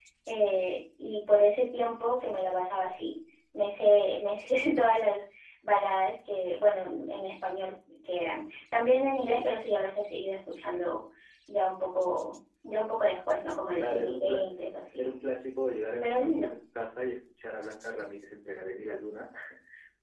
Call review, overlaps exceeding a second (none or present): present